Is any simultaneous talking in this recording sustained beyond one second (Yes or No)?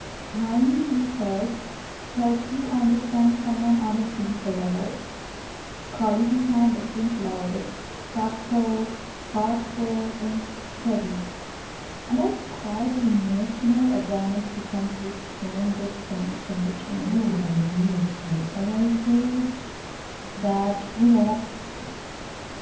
No